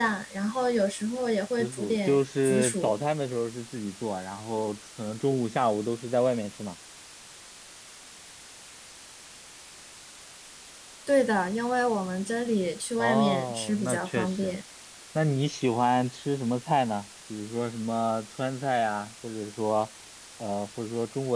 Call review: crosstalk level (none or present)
present